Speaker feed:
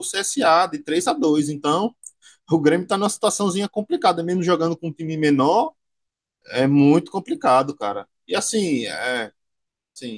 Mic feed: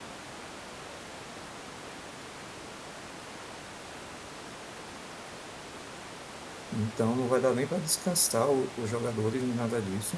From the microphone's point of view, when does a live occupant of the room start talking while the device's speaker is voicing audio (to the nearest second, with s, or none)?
7 s